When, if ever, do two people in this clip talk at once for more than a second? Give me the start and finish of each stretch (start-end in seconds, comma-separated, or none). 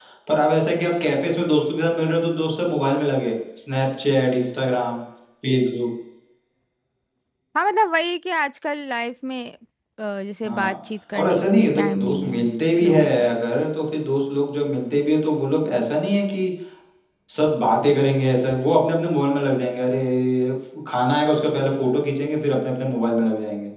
11.2-12.4